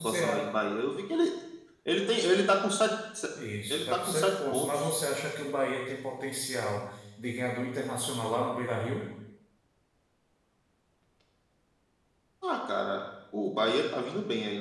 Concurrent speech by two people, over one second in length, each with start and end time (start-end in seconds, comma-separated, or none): 3.7-4.9